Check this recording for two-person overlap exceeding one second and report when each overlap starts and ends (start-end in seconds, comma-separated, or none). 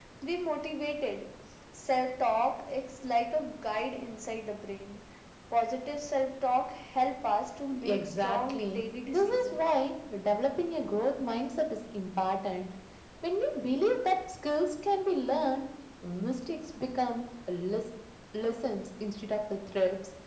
7.8-9.7